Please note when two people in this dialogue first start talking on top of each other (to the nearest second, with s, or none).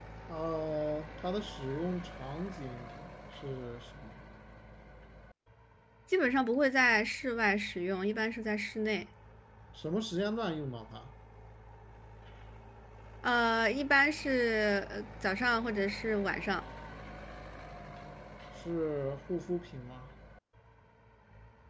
none